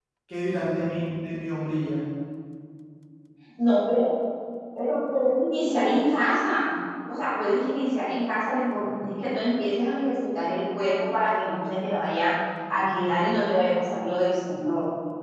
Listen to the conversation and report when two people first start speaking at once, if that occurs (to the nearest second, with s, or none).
none